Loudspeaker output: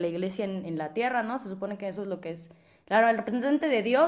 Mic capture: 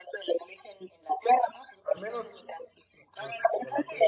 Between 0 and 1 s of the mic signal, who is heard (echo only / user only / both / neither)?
echo only